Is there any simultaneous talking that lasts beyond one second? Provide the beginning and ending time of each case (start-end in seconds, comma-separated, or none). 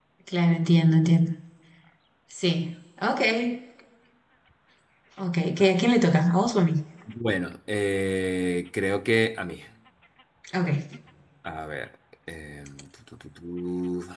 none